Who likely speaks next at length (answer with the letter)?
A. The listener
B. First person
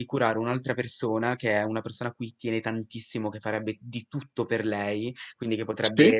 B